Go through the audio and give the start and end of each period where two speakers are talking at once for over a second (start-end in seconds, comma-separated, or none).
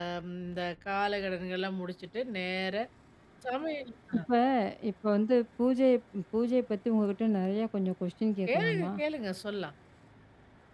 none